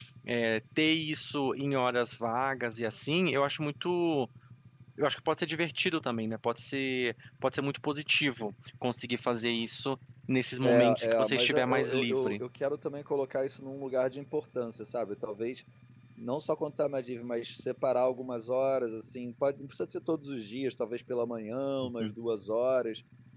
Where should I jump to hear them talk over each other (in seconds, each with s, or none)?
10.6 s